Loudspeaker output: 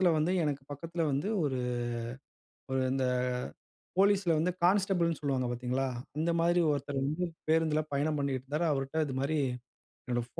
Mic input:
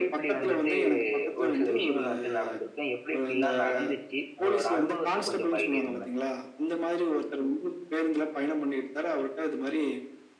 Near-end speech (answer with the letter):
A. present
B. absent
A